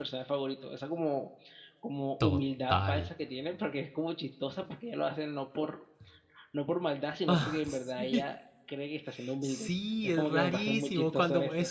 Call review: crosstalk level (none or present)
present